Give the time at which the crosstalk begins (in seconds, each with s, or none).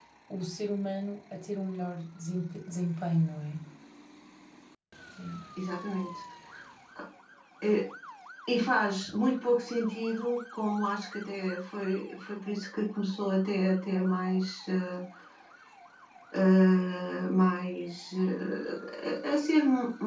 none